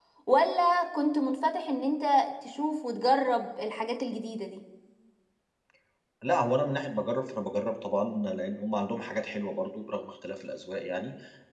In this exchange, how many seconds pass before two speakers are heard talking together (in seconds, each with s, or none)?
none